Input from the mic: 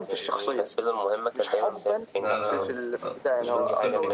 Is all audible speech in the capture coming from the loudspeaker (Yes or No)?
No